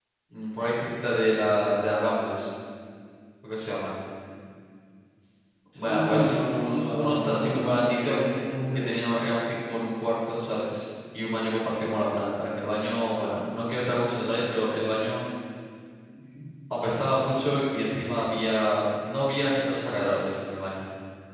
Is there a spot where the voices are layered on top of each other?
Yes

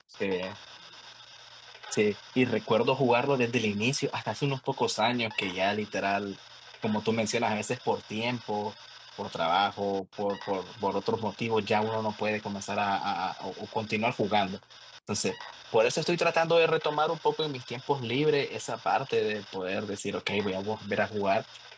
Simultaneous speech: No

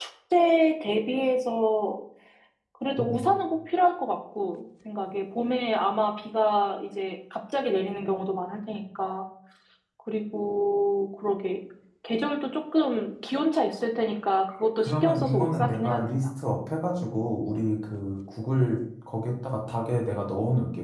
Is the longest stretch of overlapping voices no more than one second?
No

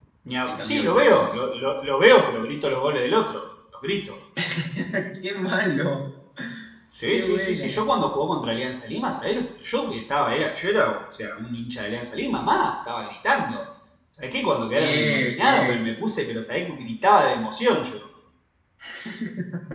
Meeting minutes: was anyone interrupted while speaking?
Yes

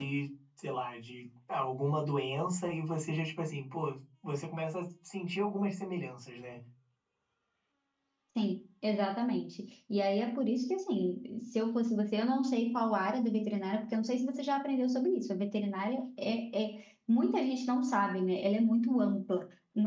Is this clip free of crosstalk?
Yes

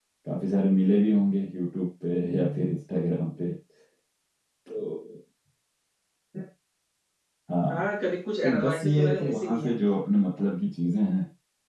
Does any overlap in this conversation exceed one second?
Yes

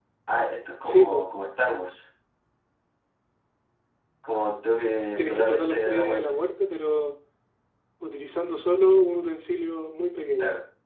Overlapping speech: Yes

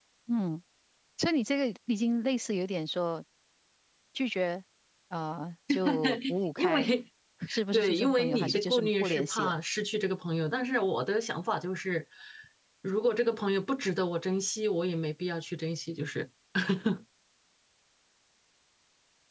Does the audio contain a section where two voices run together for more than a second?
Yes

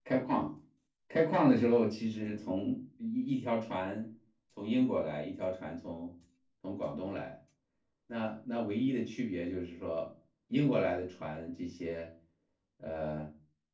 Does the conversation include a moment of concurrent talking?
No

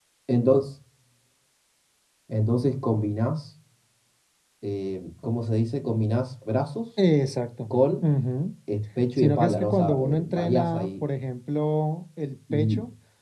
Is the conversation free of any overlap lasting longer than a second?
No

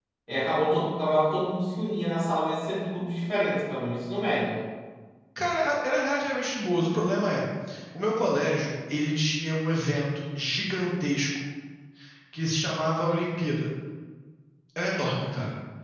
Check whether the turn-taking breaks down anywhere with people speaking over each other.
No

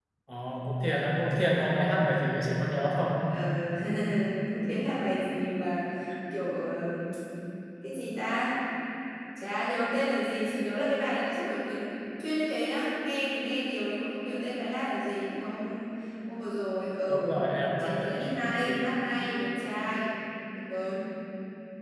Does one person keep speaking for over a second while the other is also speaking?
No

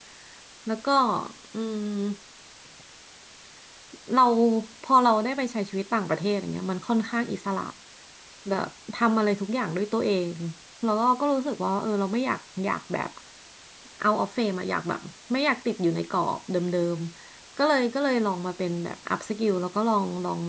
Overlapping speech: No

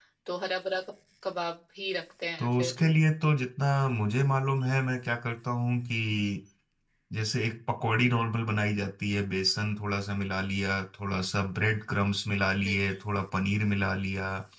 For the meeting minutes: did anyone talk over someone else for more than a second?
No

